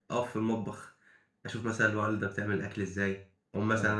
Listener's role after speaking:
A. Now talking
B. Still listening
B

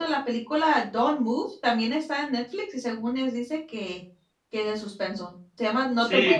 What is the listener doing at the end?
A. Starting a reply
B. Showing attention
A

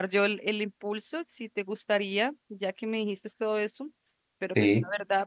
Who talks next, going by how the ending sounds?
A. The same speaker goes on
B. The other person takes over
A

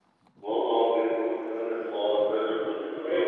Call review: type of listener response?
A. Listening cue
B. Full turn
B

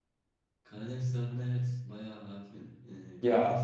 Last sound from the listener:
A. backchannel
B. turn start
A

